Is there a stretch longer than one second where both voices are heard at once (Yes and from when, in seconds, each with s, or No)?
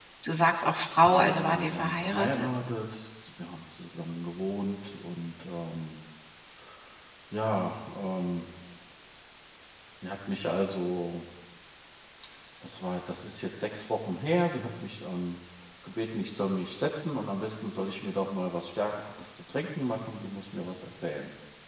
Yes, from 1.0 s